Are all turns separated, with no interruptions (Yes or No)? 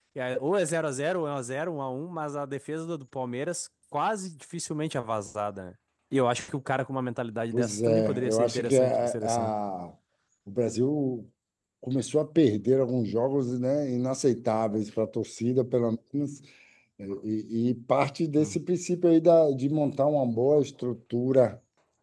No